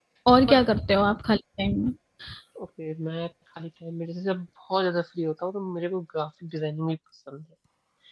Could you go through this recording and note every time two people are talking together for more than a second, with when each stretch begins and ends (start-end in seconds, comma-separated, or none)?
none